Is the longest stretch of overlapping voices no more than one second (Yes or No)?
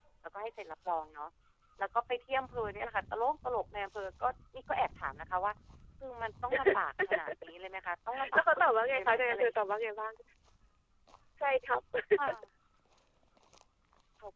No